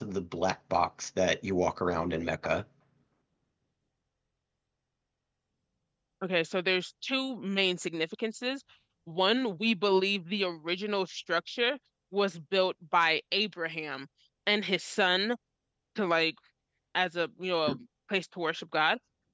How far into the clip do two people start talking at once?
none

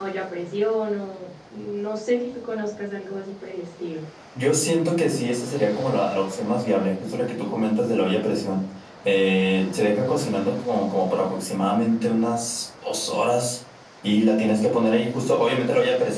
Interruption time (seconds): none

